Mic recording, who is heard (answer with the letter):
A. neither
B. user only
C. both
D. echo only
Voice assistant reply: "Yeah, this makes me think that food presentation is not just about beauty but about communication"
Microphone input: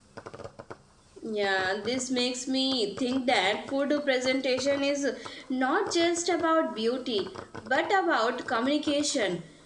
D